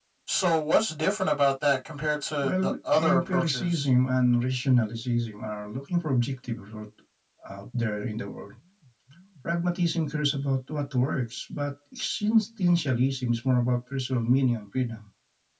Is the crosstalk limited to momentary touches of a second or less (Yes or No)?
No